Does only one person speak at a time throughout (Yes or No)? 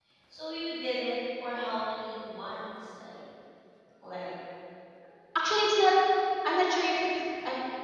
Yes